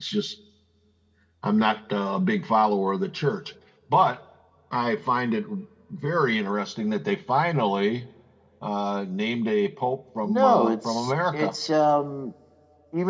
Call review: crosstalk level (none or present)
present